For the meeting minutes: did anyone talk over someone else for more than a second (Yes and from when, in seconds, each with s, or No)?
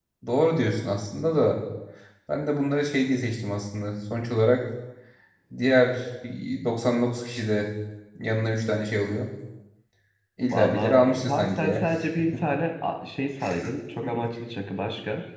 Yes, from 10.5 s